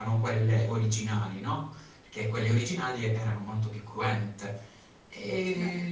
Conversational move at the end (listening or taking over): listening